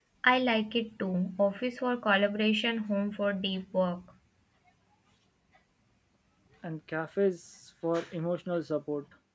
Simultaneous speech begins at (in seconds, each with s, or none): none